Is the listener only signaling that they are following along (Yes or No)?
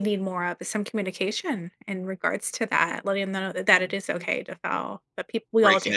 No